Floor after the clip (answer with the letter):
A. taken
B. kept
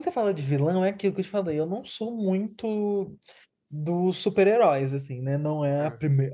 B